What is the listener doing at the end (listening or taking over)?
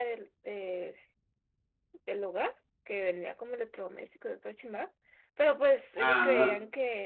listening